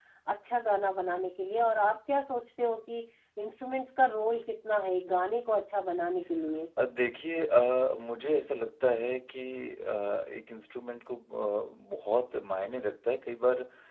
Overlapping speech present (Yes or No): No